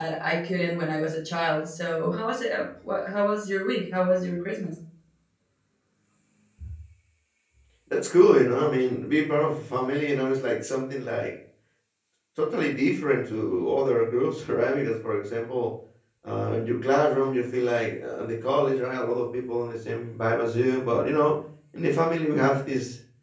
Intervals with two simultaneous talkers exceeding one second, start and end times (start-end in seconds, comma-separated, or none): none